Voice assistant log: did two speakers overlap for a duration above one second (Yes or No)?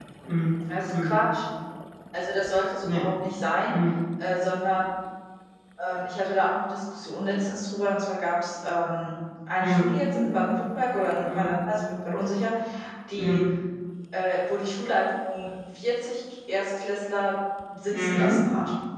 No